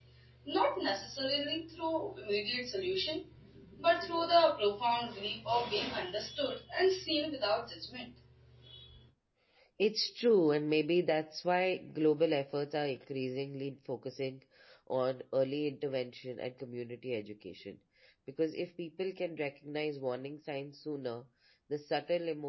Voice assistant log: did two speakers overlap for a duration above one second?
No

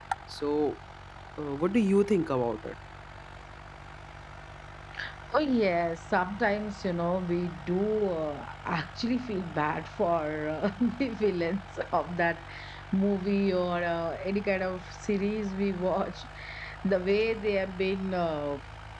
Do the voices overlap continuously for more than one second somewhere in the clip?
No

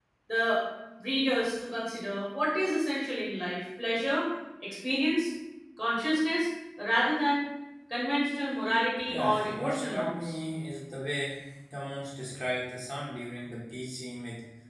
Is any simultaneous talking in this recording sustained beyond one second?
Yes, from 9.1 s

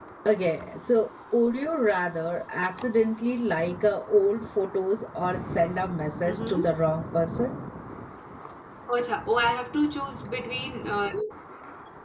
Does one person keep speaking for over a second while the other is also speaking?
No

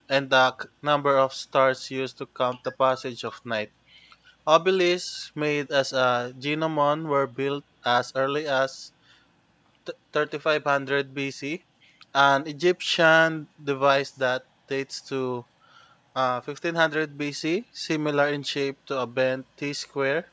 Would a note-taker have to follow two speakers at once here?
No

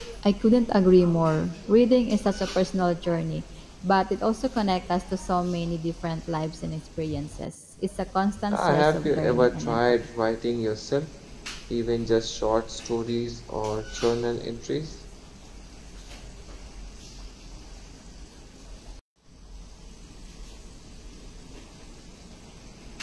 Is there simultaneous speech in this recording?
Yes, from 8.5 s

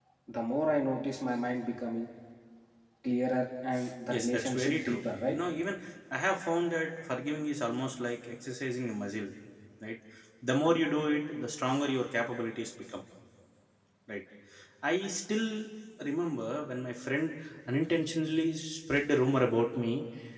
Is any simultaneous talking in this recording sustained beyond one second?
Yes, from 4.1 s

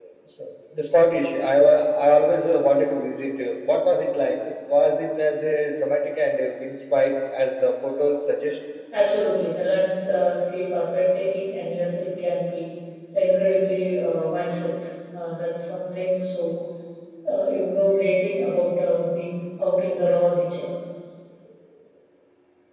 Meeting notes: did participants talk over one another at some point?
No

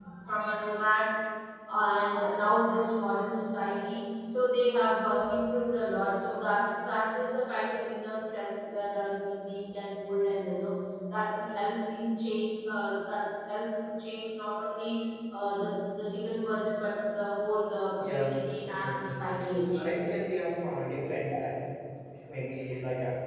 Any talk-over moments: Yes, from 18.0 s

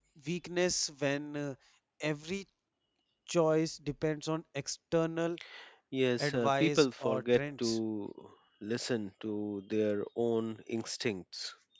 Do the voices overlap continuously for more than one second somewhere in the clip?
Yes, from 6.2 s

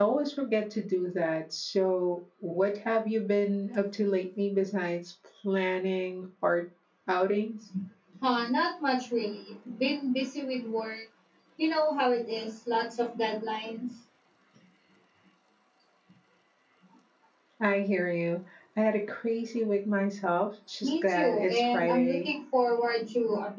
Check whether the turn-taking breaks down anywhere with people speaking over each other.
Yes, from 20.8 s

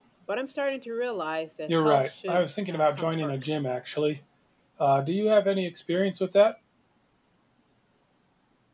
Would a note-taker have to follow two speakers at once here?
Yes, from 1.7 s

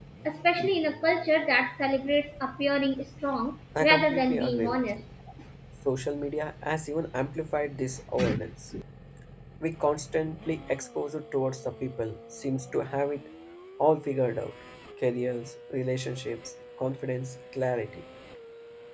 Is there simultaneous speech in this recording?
Yes, from 3.8 s

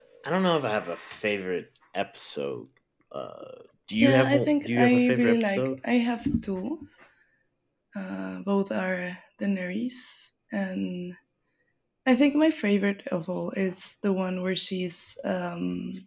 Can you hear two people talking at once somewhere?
Yes, from 4.0 s

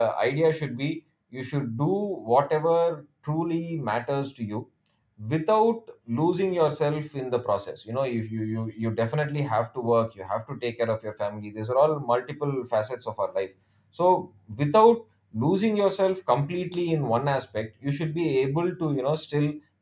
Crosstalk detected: No

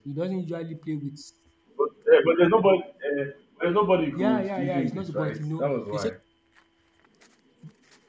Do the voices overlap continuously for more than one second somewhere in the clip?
Yes, from 4.2 s

